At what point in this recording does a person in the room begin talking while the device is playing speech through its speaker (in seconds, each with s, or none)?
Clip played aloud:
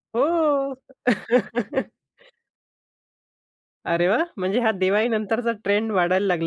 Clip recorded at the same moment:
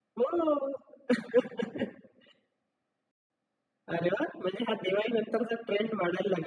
none